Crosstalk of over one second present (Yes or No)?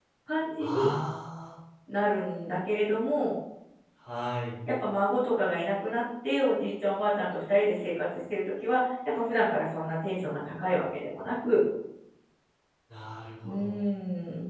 No